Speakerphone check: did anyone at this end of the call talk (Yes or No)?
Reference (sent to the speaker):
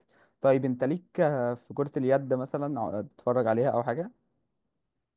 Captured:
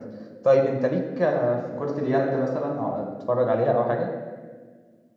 No